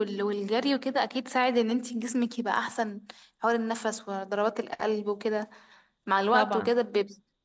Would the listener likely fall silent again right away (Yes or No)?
Yes